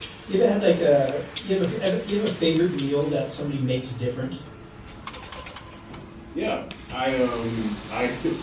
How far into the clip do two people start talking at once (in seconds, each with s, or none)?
none